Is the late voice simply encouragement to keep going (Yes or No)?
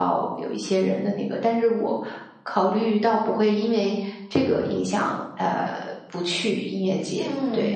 No